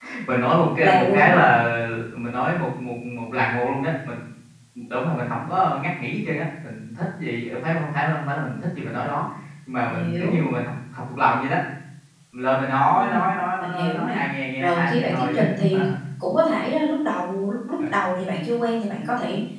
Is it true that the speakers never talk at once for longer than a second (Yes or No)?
No